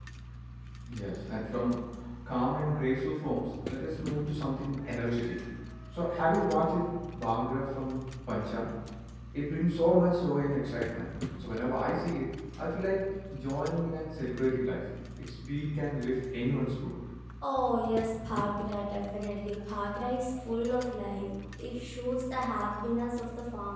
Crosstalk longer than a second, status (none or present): none